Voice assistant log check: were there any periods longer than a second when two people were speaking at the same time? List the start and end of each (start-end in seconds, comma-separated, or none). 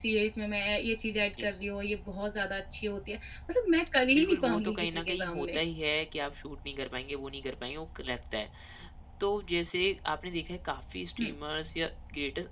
4.2-5.6